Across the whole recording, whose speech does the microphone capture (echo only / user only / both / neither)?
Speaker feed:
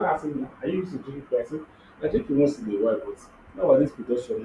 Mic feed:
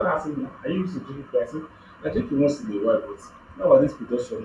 echo only